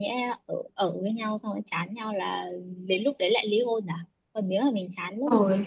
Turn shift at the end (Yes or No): No